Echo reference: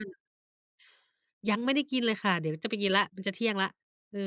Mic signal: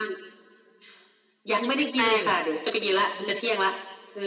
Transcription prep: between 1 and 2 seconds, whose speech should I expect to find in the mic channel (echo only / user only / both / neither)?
both